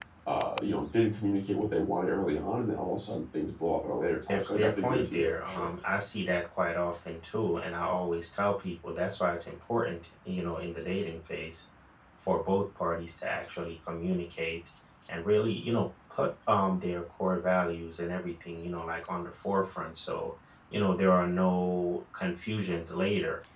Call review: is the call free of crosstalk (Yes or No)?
No